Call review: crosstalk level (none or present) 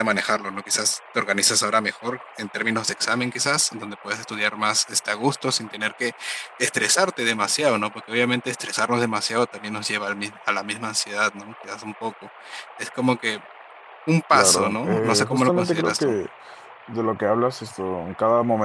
present